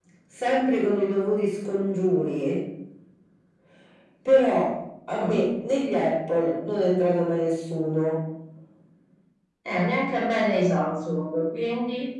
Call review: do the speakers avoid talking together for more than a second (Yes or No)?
Yes